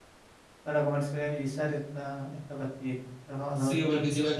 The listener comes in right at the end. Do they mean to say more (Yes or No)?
Yes